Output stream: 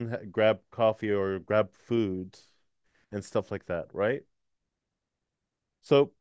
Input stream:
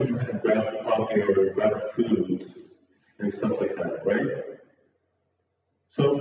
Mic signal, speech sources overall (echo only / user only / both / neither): echo only